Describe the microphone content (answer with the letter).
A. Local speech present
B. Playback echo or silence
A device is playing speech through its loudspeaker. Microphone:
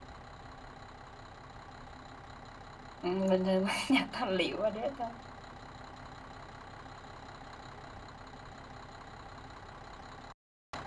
A